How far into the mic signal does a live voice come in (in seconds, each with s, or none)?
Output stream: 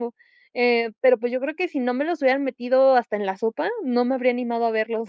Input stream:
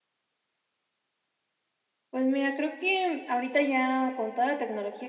2.1 s